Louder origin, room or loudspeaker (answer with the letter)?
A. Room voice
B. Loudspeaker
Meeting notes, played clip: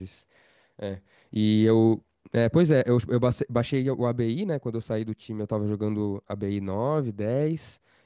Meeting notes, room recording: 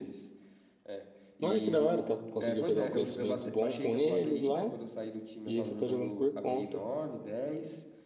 A